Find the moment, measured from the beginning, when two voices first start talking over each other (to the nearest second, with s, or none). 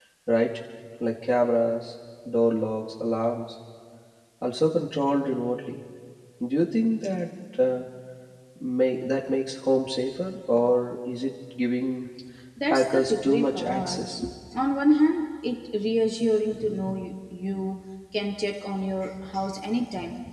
13 s